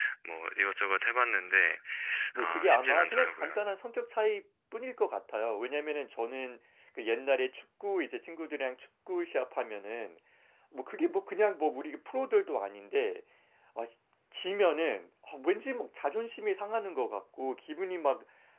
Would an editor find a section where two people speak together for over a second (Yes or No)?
Yes